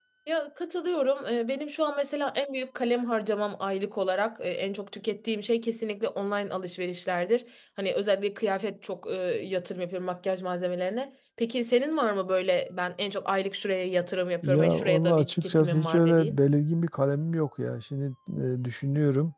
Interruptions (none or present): present